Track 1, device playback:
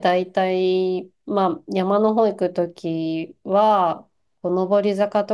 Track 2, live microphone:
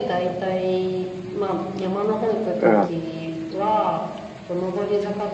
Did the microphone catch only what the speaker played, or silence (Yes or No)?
No